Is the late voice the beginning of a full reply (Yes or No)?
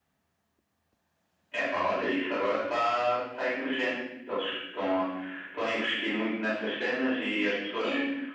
No